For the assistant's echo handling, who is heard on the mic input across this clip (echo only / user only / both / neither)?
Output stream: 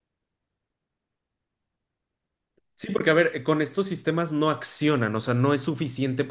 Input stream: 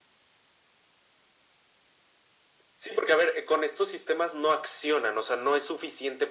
echo only